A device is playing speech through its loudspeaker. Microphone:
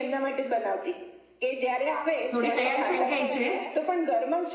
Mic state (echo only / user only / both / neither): both